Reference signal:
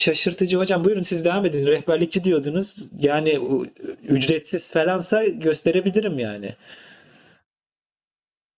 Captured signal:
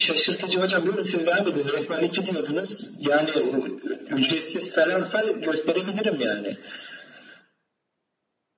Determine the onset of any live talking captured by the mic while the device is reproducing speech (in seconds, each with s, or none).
none